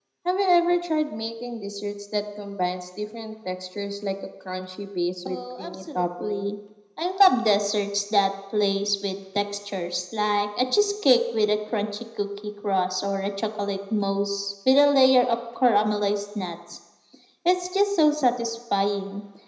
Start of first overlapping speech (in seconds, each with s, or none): 5.2 s